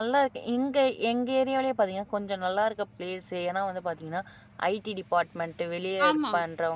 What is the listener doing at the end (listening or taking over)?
listening